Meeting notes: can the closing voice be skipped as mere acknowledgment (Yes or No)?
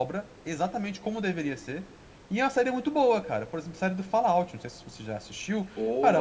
Yes